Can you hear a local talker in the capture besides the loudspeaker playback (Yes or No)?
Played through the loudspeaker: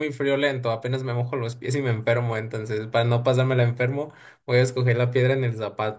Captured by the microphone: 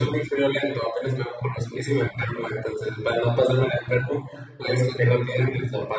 No